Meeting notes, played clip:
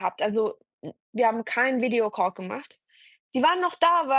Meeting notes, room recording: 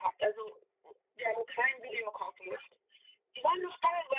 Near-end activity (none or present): none